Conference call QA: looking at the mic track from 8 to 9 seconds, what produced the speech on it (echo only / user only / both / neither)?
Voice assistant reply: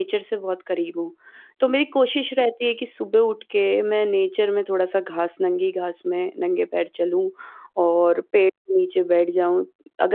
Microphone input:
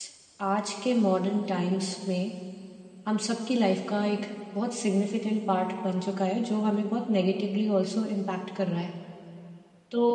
user only